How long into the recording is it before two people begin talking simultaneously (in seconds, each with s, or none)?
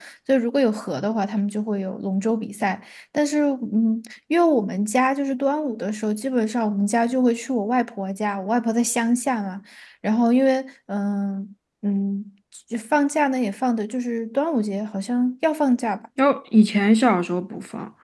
none